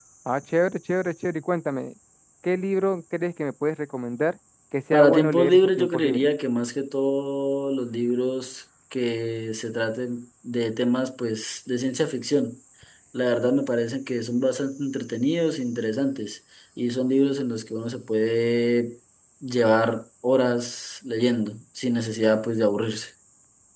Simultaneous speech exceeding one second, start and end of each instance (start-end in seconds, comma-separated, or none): 4.9-6.3